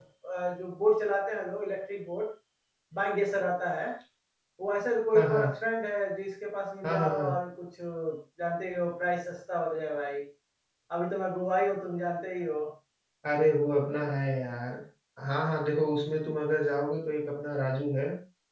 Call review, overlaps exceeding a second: none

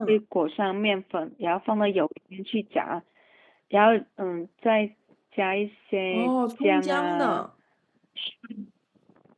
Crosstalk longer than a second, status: present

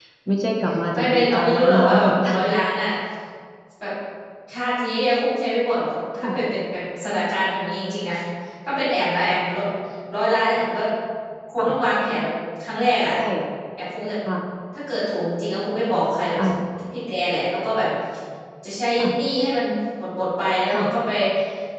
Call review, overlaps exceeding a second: present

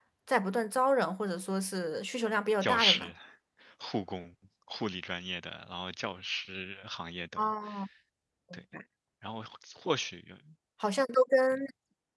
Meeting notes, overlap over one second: none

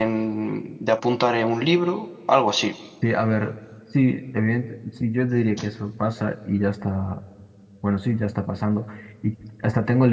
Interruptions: none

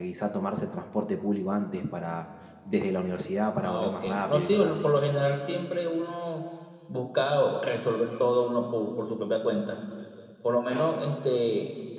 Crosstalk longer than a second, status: present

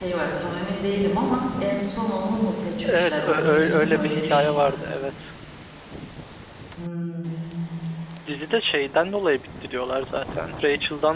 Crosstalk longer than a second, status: present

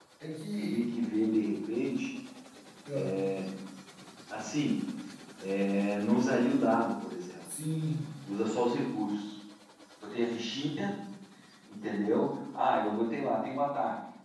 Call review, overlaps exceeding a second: none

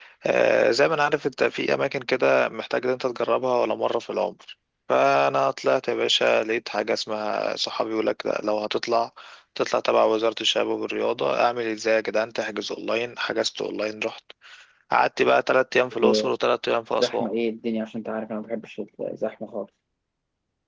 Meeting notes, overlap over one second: none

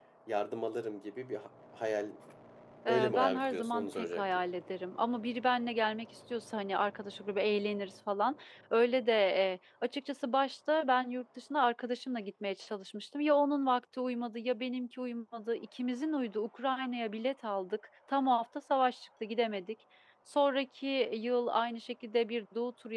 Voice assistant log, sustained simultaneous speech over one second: present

